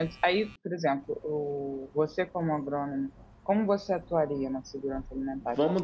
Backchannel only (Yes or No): No